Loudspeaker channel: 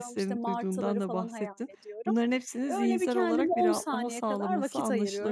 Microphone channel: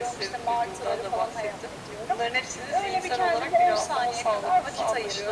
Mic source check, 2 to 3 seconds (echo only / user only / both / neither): echo only